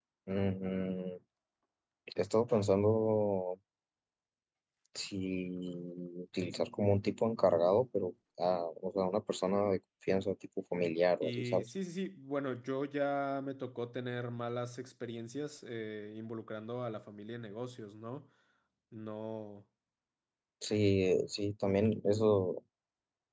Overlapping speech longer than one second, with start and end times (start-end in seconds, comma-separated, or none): none